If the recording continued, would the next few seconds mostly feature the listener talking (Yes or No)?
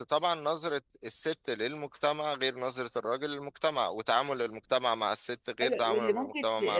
Yes